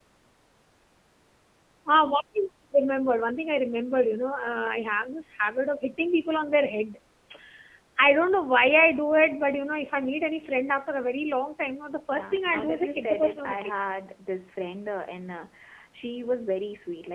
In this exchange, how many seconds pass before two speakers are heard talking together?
12.1 s

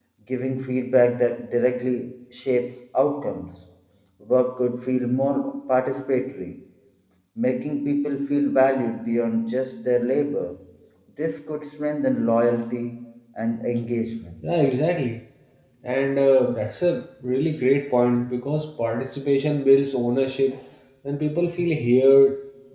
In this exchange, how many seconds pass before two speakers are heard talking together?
none

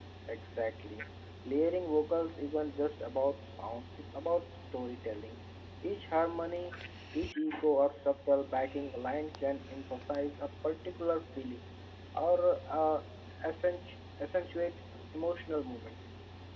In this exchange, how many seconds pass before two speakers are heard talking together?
none

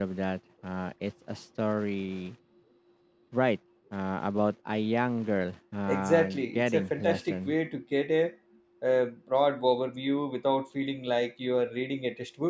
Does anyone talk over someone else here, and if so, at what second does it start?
5.9 s

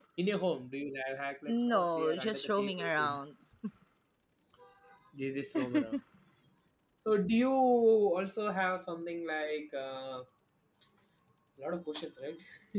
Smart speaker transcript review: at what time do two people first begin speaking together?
1.5 s

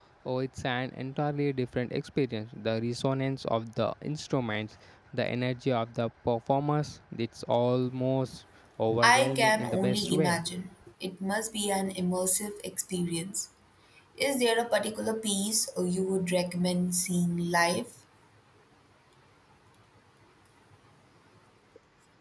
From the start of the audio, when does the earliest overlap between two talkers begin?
9.0 s

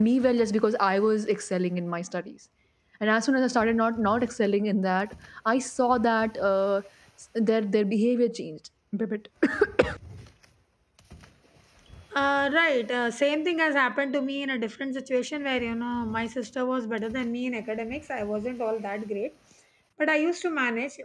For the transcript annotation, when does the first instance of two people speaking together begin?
none

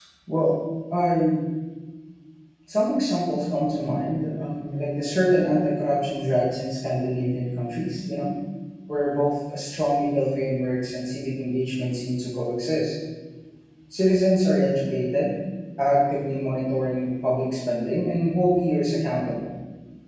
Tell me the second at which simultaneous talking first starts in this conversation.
none

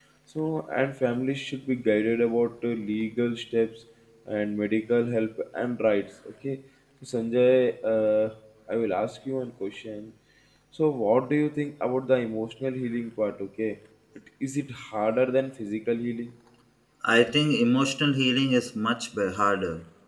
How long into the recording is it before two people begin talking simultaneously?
none

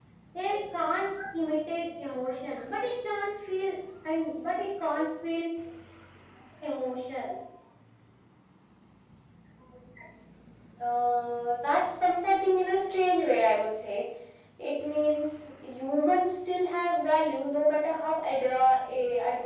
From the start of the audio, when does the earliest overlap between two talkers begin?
none

